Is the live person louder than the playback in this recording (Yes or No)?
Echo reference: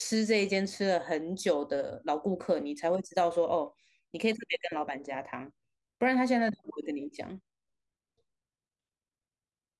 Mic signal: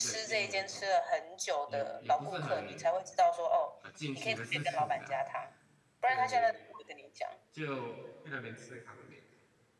No